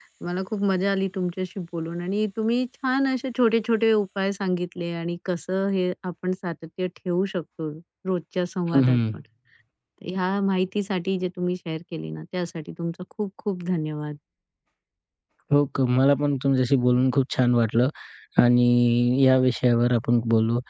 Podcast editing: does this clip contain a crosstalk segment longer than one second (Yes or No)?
No